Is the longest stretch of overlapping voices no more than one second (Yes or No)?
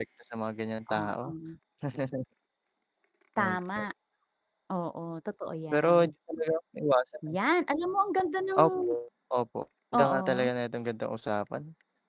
Yes